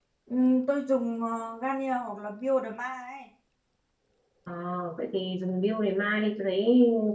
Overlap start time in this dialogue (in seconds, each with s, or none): none